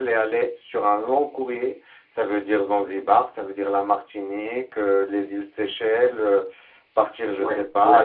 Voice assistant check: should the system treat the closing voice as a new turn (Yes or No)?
Yes